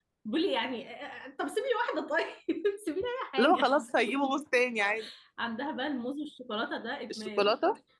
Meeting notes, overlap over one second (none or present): none